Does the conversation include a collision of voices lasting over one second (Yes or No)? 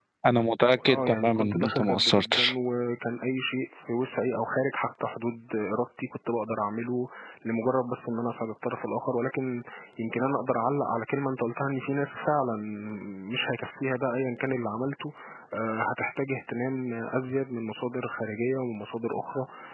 Yes